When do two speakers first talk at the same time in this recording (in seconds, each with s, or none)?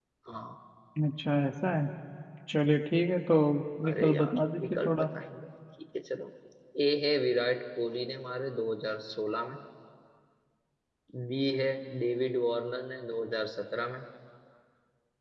3.8 s